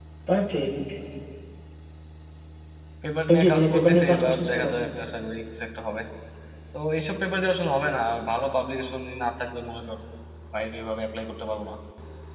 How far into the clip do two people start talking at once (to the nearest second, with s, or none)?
3 s